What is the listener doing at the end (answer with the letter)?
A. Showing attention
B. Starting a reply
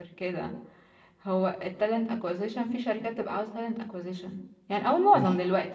A